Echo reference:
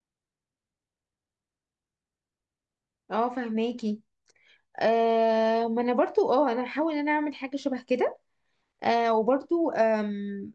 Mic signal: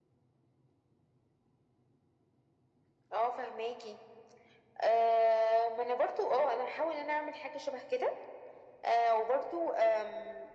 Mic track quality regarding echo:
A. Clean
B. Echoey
B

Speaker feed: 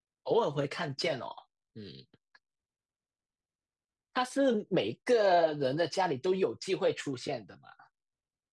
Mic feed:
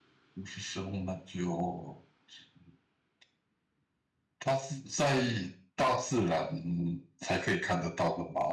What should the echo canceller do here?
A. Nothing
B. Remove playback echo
A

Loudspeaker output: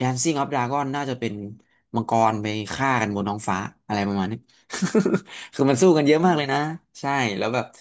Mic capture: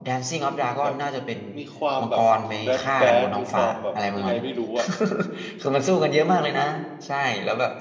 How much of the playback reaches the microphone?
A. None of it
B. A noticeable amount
B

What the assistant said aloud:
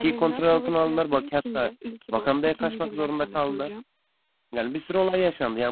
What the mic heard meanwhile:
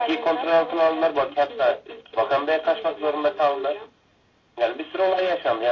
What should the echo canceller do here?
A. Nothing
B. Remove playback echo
B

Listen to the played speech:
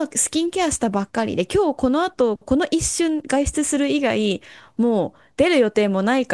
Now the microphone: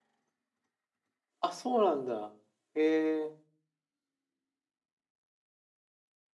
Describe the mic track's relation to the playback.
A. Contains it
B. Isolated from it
B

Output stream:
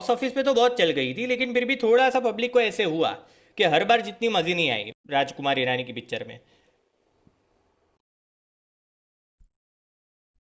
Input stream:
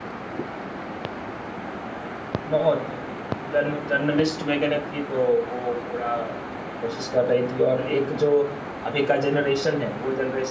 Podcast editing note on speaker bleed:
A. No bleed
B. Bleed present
A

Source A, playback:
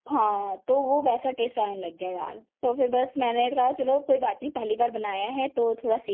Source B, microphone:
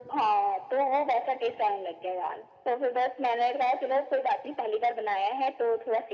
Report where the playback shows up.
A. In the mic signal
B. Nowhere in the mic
A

